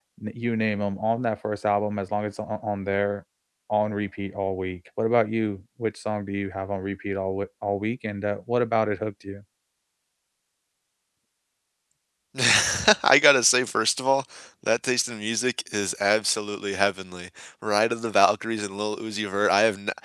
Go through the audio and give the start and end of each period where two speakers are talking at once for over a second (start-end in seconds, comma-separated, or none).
none